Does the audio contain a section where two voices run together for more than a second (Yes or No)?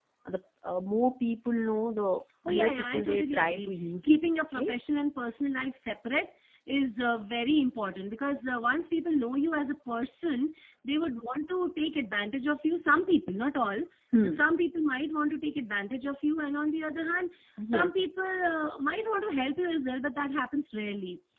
Yes